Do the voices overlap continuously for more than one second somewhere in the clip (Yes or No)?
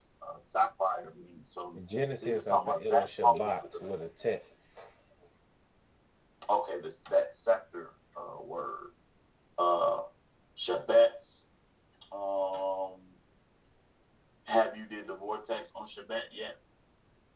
Yes